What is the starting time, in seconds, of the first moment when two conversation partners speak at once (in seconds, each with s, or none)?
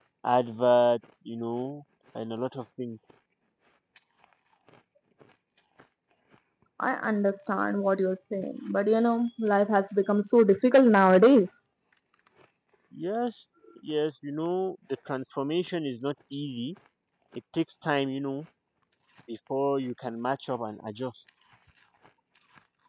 none